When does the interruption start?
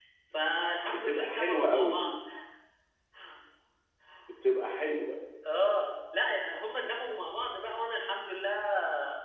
1 s

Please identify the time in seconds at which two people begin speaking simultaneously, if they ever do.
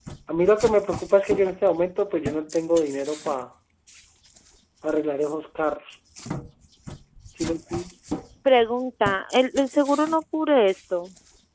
none

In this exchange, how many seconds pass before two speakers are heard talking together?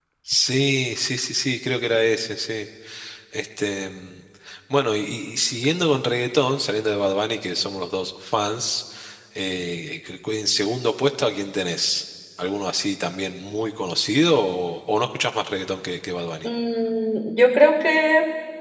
none

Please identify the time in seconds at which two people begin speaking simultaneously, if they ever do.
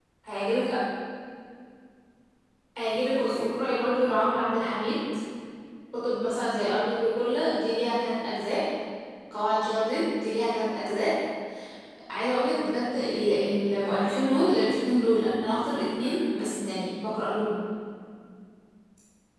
3 s

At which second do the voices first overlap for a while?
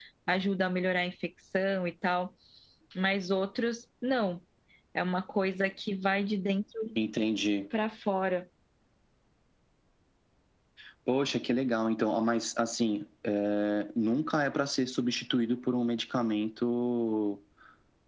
none

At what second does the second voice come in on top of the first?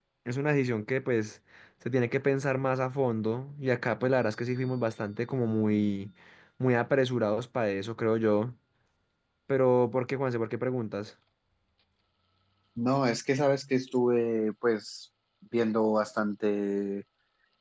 none

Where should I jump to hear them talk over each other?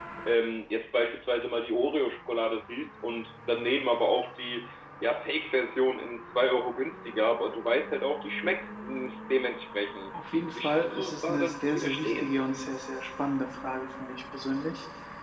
11 s

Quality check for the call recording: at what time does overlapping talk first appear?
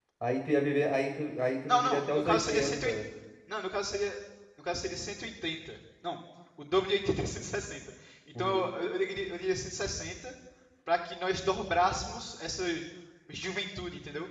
2 s

